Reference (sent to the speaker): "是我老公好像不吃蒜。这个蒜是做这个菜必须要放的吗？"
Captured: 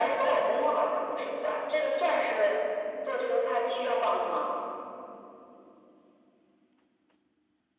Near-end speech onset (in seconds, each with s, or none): none